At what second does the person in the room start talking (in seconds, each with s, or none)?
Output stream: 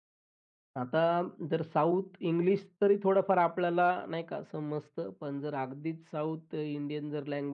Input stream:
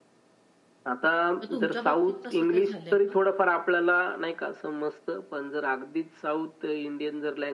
1.4 s